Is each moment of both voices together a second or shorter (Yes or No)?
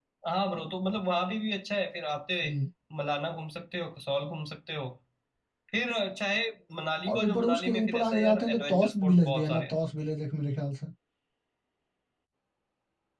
No